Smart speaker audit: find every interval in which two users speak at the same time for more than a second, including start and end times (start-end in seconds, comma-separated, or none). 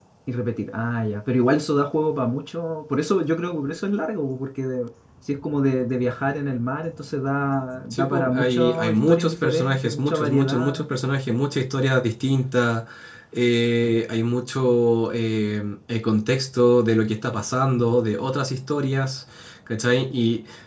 7.9-10.8